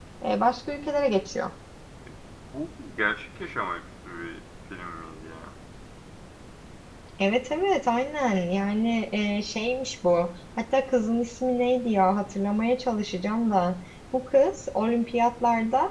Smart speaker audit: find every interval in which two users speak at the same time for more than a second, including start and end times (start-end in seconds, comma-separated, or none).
none